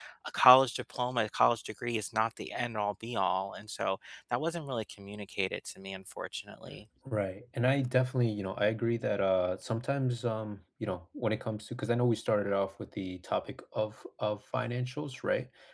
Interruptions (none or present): none